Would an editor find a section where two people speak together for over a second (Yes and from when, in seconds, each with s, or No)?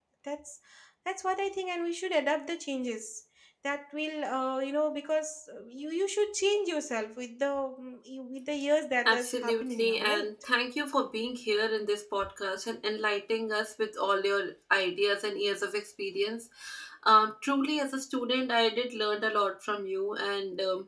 Yes, from 9.0 s